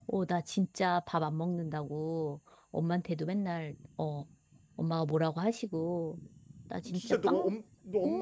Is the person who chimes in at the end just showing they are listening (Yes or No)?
No